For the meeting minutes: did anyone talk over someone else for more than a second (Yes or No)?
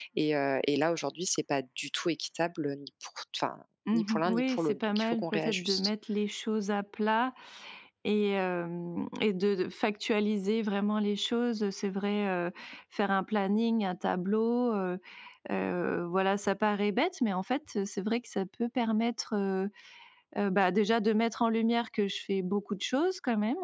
Yes